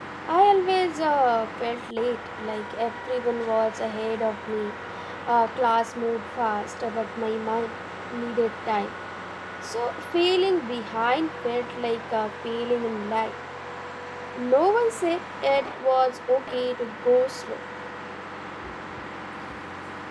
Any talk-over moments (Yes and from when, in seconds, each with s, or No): No